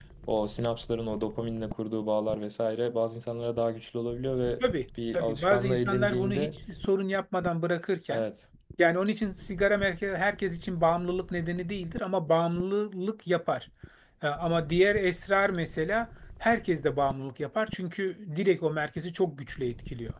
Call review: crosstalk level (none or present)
present